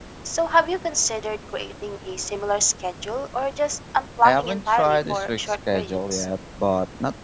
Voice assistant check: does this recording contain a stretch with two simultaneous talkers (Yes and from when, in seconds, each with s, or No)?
Yes, from 4.2 s